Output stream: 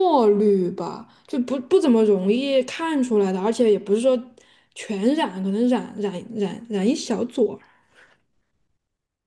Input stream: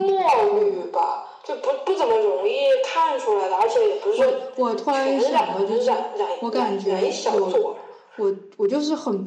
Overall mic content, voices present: both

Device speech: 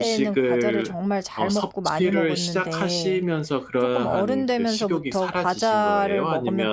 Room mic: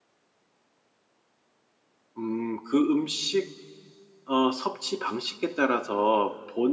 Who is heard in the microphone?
user only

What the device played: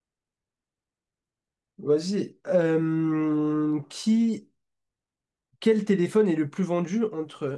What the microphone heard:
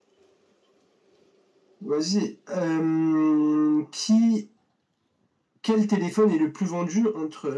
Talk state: echo only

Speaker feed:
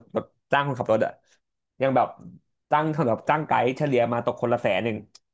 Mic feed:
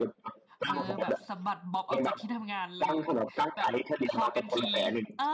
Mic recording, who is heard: both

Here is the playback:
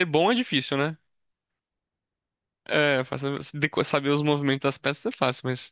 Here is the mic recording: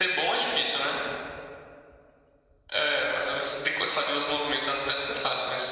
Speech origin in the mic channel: echo only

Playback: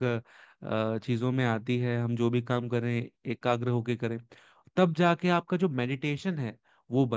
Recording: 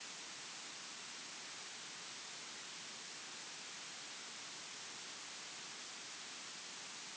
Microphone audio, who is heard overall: neither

